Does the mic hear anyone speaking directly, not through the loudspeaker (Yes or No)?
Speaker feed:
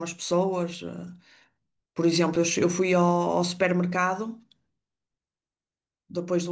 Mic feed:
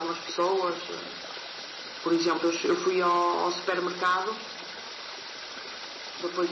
No